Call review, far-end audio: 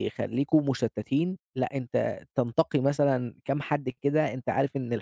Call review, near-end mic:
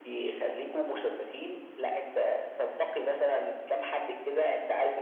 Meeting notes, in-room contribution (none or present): none